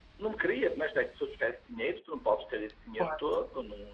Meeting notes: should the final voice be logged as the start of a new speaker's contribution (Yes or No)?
No